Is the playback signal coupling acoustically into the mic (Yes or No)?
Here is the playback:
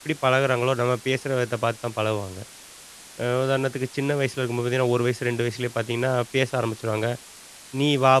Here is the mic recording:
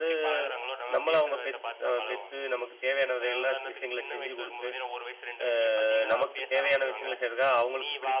Yes